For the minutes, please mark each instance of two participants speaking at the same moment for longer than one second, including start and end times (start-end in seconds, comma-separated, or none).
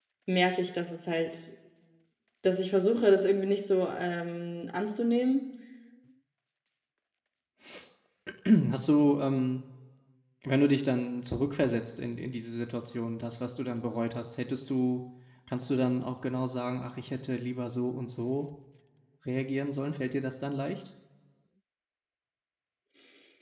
none